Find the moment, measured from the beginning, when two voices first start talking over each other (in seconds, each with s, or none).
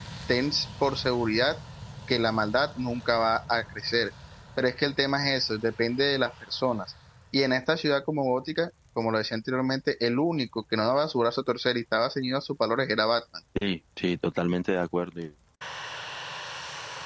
none